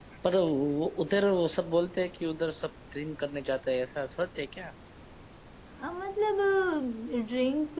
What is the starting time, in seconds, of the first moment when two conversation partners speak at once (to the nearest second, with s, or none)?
none